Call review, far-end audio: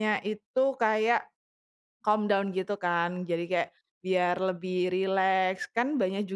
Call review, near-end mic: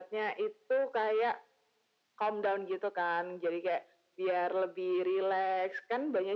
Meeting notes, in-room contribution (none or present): none